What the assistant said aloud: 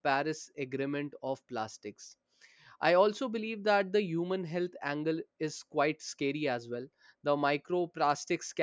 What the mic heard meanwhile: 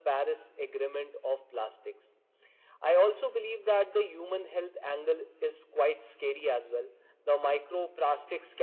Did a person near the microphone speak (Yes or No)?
No